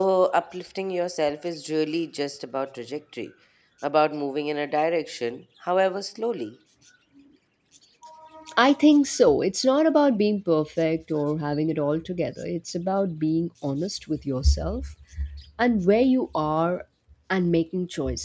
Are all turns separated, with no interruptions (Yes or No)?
Yes